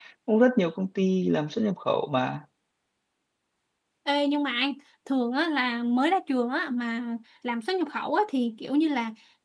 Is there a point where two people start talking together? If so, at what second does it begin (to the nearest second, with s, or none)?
none